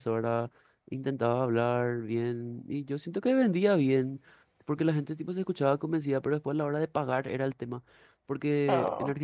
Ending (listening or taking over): listening